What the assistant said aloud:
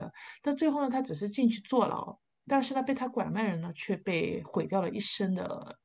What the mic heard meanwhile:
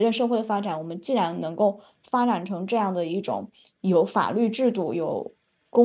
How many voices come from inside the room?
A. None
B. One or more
B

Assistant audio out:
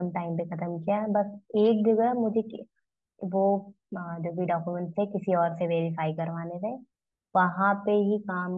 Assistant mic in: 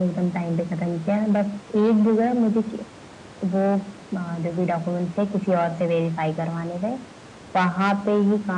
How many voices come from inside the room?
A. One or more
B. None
B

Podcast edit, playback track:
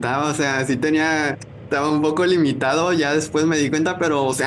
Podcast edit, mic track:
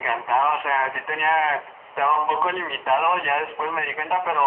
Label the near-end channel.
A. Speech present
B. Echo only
B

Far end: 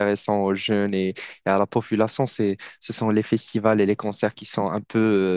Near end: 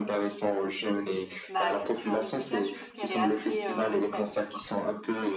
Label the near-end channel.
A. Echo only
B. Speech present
B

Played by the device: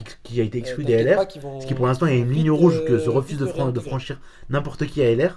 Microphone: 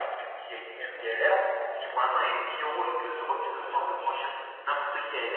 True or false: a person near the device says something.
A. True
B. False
B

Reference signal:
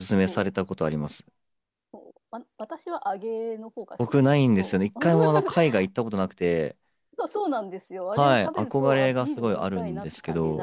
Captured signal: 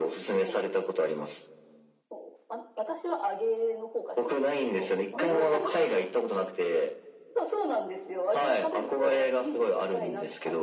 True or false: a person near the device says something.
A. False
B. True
A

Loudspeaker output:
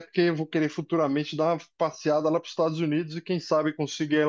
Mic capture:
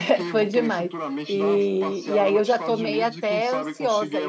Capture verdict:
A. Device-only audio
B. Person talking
B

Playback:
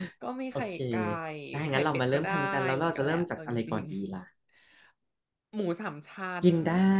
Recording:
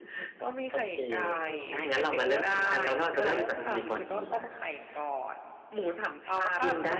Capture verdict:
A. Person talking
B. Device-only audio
A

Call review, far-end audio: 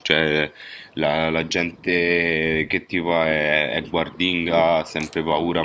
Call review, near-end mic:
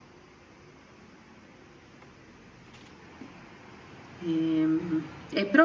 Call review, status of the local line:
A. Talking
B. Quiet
A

